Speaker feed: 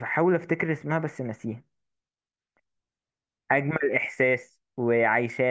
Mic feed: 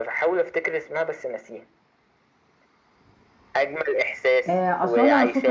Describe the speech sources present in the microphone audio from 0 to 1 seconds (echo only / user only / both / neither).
echo only